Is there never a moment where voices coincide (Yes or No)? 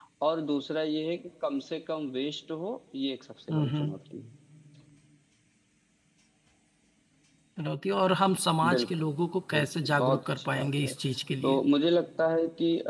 No